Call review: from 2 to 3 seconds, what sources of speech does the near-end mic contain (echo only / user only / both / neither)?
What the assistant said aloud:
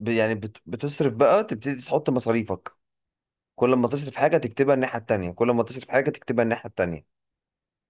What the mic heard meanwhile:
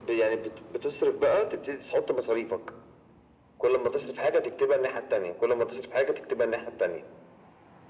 echo only